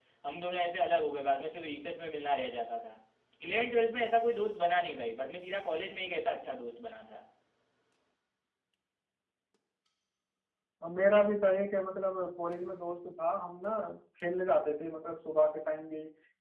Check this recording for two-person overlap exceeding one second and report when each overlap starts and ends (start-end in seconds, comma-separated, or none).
none